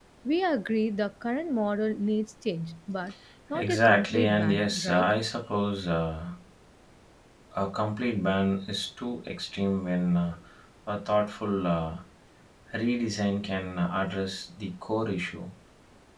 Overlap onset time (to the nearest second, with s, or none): 4 s